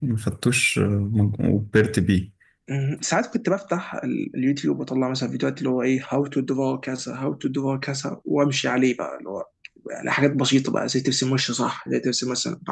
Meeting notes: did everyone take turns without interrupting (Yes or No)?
Yes